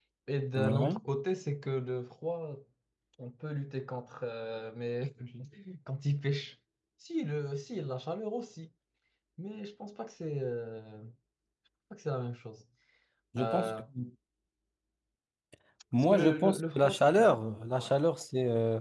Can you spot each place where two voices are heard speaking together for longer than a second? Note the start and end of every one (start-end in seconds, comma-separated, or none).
16.0-17.3